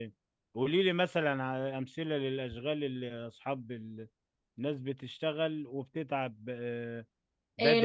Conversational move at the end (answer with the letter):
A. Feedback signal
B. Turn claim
B